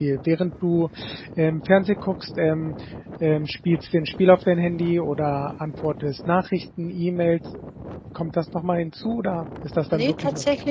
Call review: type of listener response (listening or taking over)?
taking over